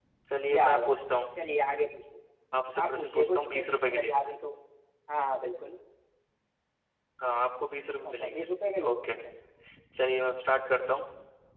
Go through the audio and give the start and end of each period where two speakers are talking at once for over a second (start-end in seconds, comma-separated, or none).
2.8-4.1